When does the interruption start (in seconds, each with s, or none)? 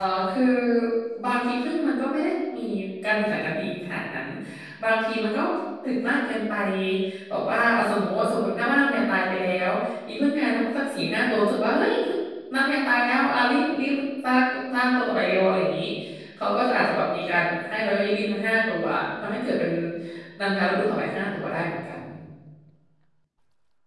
none